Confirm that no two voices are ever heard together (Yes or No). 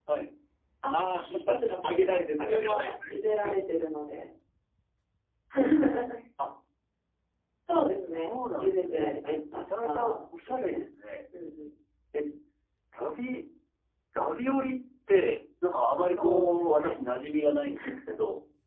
No